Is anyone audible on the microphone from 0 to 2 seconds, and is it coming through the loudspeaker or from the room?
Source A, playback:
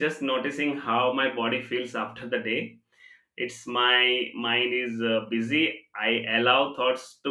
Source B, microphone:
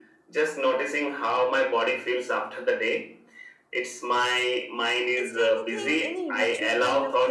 echo only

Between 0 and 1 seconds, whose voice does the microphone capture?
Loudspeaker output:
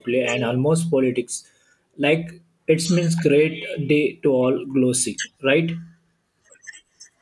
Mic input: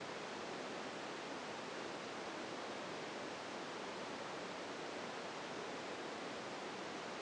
neither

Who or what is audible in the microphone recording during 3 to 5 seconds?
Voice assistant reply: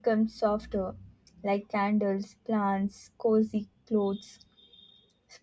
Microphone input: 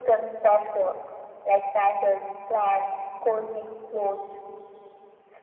echo only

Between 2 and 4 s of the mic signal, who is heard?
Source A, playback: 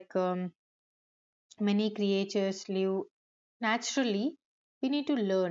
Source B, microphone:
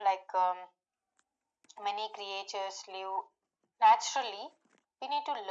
echo only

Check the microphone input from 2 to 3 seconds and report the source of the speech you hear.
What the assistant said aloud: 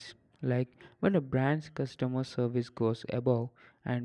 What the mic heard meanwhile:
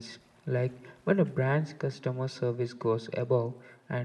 echo only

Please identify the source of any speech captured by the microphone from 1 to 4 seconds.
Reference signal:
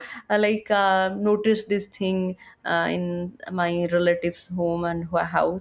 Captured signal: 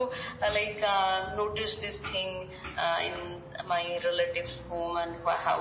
echo only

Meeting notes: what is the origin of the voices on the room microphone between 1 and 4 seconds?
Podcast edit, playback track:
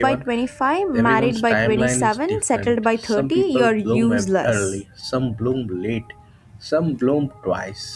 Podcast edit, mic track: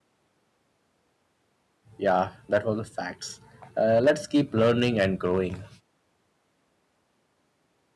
user only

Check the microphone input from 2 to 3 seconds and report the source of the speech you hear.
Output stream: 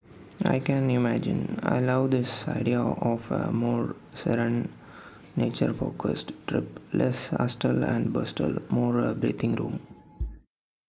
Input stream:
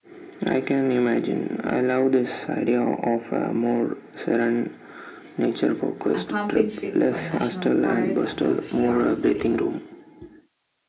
echo only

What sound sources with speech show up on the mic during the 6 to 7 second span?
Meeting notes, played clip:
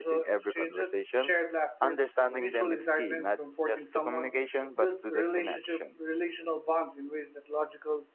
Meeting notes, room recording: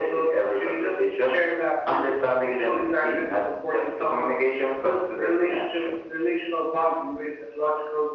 echo only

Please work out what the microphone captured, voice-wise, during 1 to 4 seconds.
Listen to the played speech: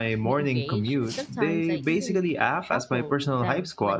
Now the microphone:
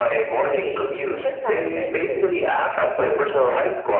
both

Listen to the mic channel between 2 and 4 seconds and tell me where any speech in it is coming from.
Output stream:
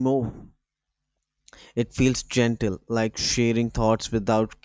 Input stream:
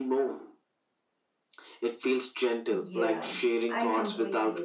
both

